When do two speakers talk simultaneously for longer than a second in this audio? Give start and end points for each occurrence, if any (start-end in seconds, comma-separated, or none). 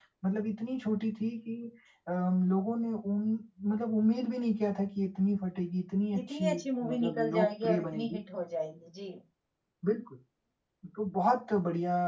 6.2-8.2